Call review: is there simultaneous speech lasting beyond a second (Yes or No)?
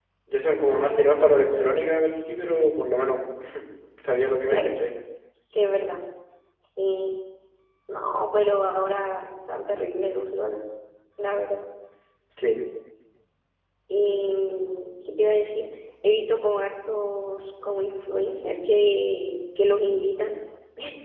Yes